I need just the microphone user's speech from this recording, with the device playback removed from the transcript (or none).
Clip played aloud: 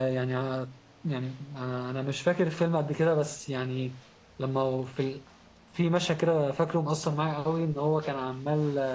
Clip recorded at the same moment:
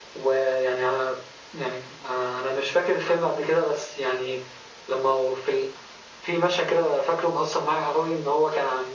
none